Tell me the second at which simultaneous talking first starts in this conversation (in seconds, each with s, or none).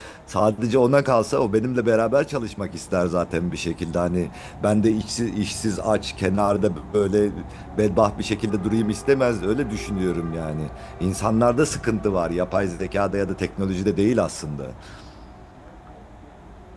none